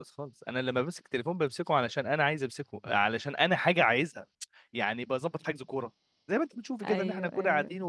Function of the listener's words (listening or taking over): listening